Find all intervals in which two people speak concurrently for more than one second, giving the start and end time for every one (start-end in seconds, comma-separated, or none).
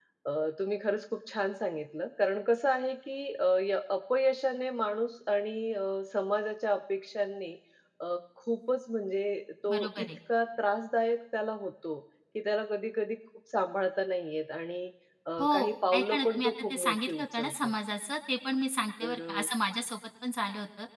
15.4-17.7